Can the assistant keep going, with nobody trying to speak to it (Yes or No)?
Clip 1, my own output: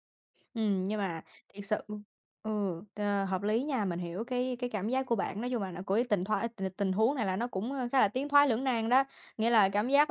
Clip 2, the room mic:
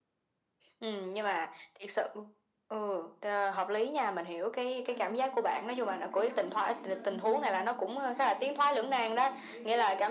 No